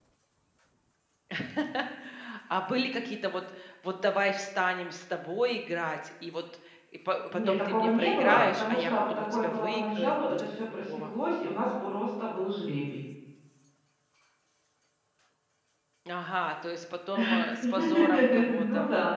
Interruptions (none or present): present